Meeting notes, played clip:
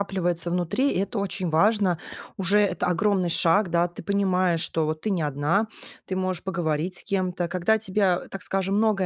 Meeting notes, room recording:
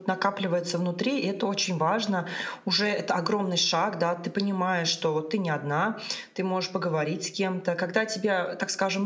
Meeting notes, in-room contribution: none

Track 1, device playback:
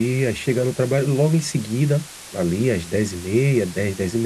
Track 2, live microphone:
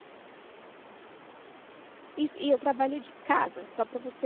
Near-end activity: present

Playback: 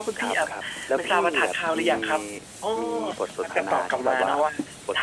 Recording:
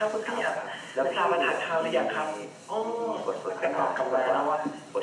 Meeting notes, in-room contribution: none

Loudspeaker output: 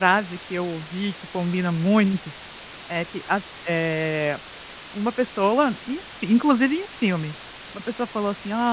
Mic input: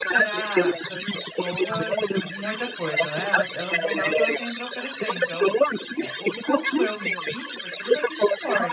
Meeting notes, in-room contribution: present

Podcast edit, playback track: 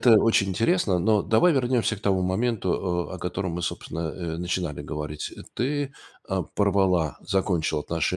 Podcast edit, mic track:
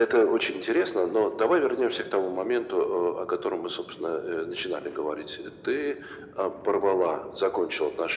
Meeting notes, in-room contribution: none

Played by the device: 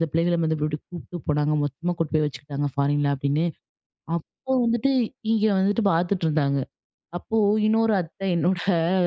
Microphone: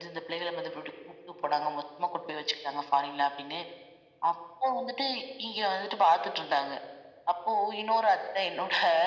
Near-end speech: none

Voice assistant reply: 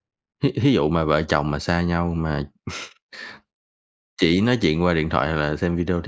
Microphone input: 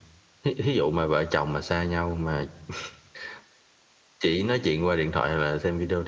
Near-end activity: none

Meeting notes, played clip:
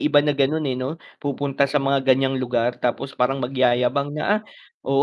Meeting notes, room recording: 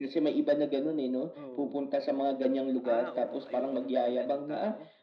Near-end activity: present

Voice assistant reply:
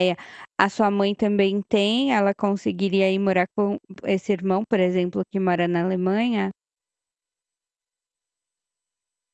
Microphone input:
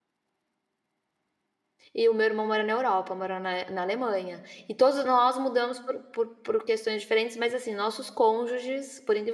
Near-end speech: present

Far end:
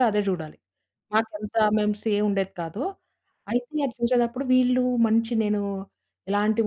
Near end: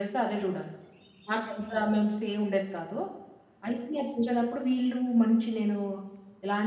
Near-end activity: none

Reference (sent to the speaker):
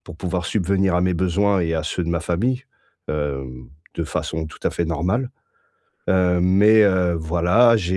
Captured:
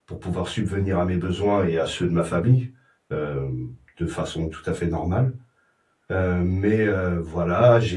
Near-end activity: none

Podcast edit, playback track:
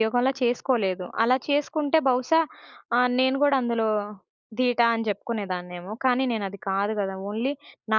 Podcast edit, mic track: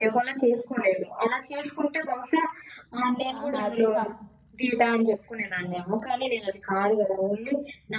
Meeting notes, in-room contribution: present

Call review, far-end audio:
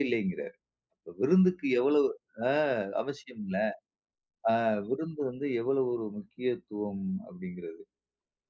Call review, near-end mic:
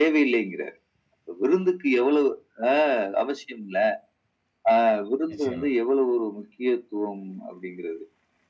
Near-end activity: present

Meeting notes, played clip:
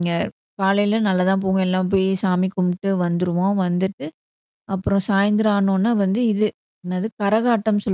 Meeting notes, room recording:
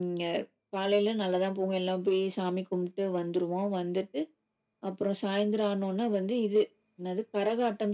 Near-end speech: none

